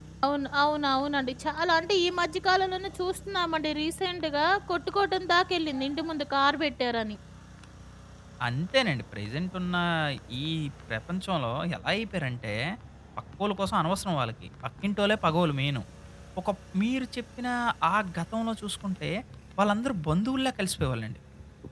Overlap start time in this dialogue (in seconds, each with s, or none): none